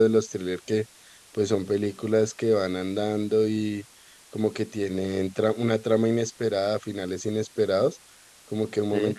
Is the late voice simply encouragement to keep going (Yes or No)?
Yes